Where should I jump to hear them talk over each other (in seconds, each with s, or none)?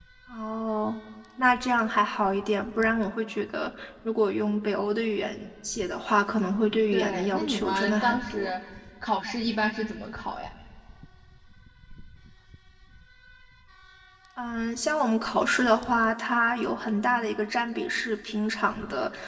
6.9 s